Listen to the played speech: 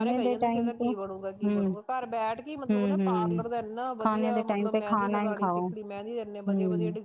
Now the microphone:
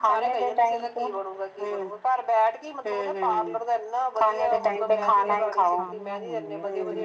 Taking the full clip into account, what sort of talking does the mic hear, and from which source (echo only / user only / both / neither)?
both